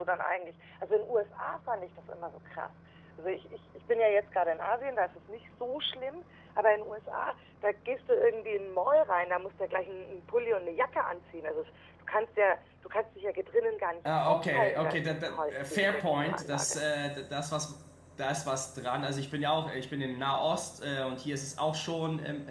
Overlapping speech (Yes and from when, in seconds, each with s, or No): Yes, from 14.0 s